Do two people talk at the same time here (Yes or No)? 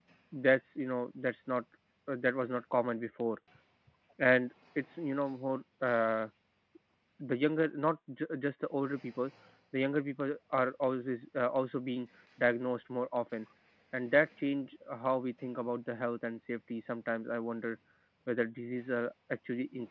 No